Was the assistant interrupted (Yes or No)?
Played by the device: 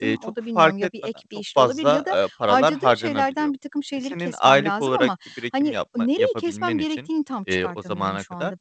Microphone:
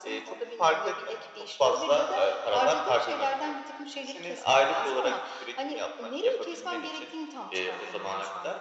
No